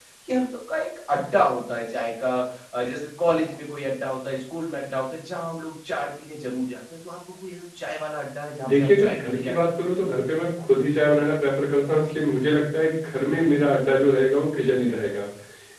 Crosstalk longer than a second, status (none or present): present